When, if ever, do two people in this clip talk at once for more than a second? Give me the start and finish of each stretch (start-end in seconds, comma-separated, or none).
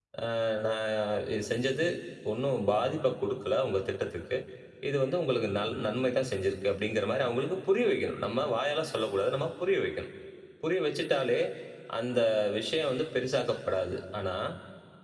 none